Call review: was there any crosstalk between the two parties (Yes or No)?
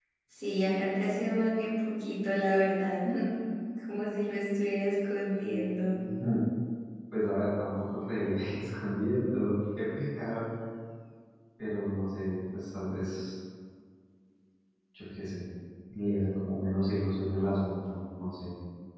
No